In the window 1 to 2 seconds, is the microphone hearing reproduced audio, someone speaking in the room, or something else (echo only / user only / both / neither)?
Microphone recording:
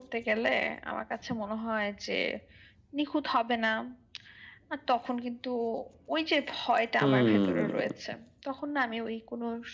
echo only